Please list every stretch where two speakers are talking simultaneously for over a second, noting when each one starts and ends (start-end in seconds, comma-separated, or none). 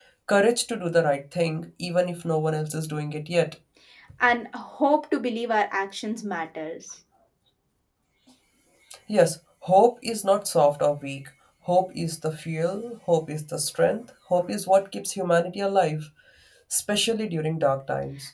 none